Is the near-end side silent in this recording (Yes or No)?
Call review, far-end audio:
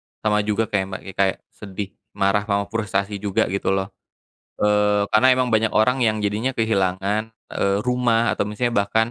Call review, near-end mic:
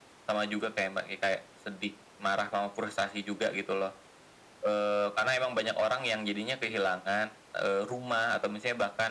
Yes